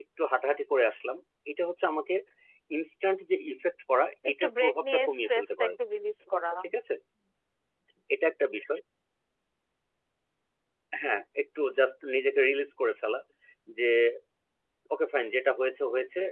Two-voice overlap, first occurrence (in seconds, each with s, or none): 4.2 s